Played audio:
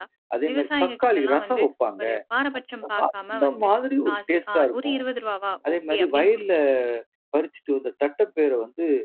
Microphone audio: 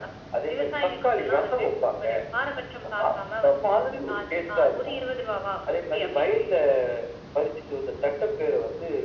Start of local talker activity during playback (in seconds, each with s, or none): none